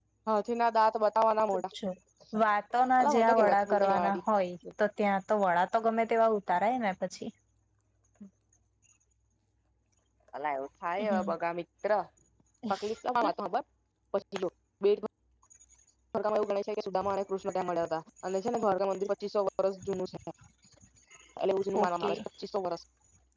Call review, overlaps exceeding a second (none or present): present